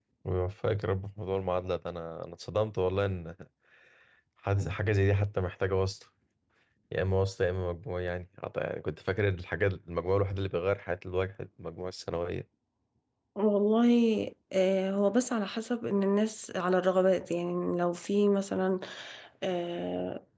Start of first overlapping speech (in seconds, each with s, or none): none